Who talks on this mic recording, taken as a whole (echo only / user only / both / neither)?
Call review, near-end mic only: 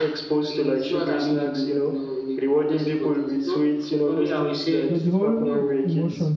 both